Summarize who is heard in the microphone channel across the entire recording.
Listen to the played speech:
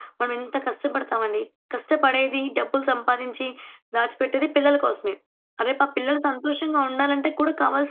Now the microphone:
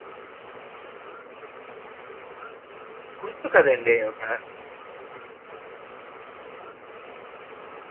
user only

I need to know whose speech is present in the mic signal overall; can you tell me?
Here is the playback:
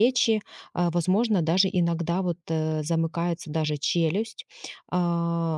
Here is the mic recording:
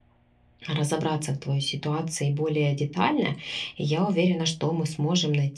user only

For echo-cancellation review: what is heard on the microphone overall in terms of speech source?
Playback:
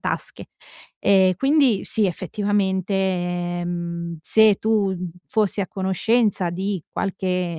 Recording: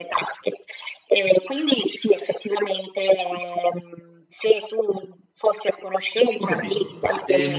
both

